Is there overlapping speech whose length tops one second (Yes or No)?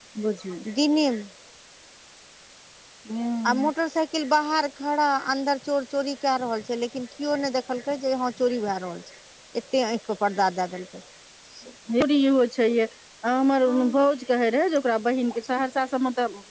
No